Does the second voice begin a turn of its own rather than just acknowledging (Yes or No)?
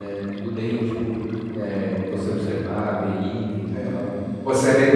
Yes